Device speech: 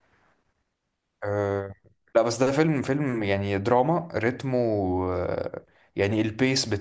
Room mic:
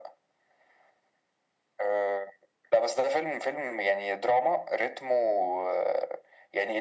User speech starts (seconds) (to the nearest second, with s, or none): none